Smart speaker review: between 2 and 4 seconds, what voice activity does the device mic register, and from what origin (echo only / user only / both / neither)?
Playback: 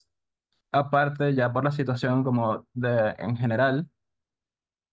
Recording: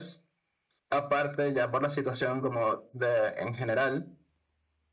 echo only